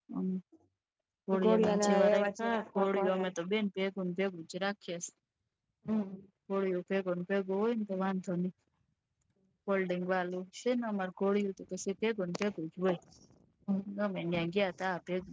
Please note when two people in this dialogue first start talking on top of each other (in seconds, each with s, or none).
1.4 s